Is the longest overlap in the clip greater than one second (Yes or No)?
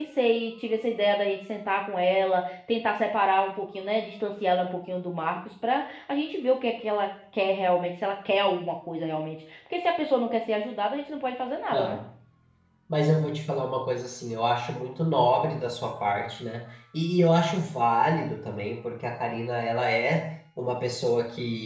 No